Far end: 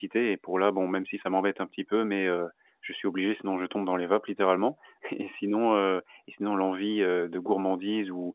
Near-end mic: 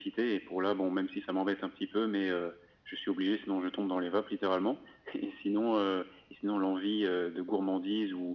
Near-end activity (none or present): none